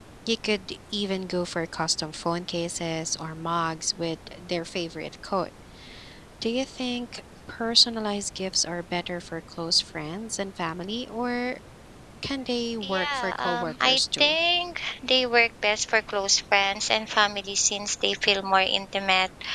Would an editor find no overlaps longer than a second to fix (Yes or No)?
No